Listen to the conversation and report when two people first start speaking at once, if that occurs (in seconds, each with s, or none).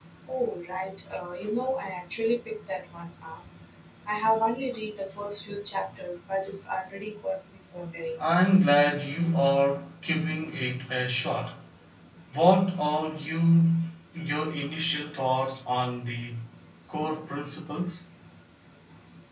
none